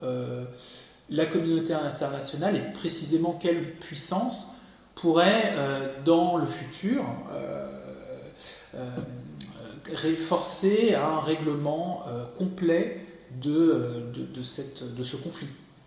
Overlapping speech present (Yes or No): No